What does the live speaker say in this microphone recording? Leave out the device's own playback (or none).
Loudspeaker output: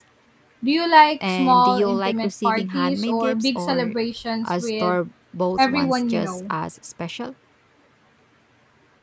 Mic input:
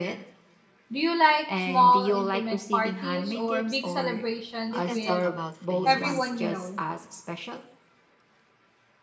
you can talk about for years.